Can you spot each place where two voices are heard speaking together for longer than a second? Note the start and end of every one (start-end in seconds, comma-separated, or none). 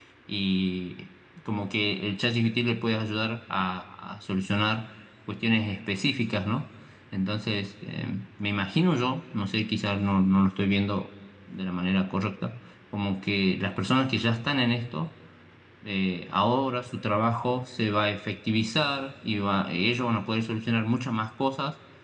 none